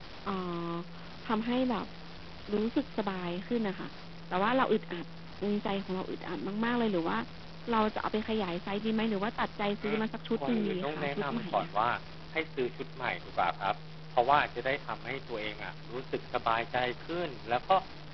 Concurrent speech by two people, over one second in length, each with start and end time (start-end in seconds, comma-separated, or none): 10.5-11.7